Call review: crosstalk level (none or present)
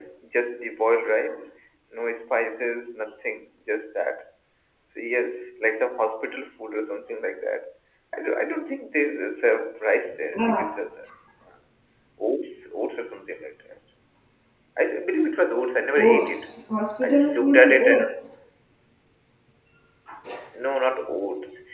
present